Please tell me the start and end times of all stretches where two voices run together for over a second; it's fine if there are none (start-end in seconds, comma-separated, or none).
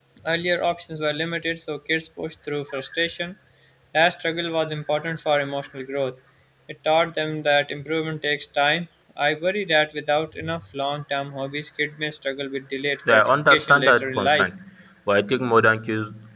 13.1-14.5